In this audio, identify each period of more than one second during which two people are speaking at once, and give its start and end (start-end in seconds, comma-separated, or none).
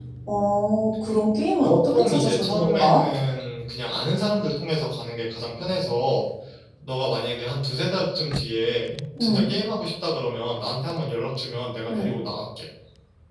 1.6-3.0